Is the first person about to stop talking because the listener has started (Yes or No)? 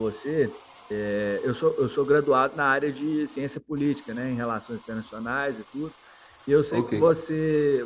No